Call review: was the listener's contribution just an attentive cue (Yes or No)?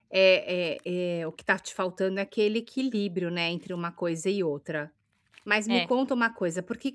Yes